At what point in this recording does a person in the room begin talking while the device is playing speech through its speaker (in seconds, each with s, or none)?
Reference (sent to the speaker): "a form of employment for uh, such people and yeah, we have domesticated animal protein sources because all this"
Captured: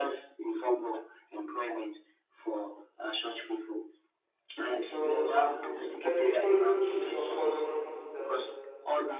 4.8 s